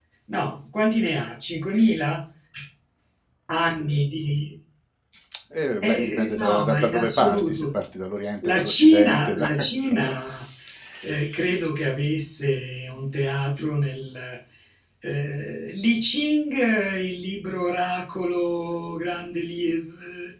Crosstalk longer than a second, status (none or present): present